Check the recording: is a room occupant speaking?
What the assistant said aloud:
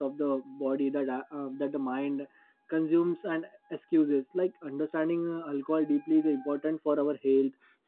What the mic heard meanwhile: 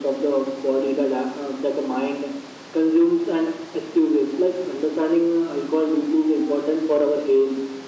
No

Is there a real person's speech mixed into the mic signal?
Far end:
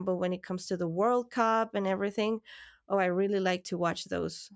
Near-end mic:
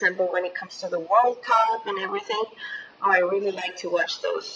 No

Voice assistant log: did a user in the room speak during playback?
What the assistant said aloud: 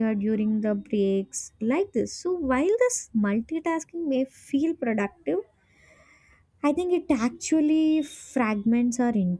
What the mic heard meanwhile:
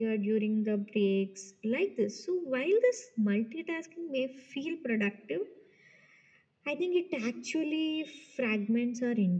No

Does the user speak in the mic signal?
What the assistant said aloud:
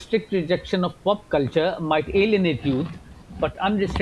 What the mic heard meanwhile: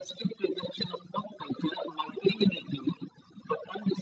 No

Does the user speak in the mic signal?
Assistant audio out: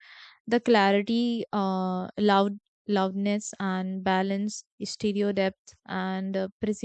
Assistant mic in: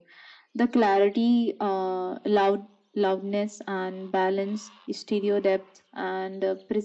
No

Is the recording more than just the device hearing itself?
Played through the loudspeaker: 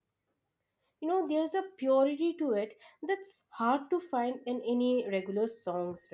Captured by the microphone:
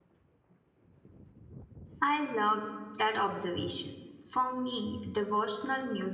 Yes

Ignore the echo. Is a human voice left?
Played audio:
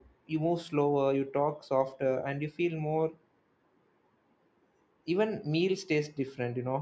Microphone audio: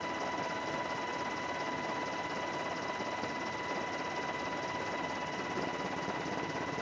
No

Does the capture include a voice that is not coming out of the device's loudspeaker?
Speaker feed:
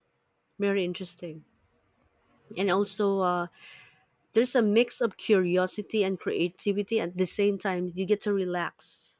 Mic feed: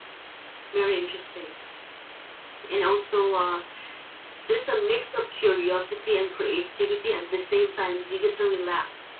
No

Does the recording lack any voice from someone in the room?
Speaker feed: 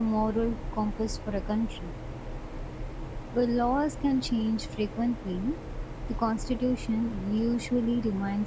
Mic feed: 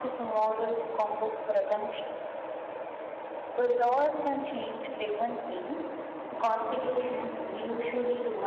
Yes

